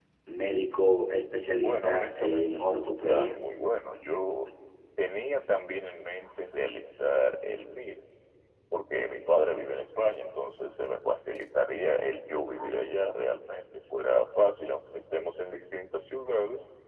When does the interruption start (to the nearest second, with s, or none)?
2 s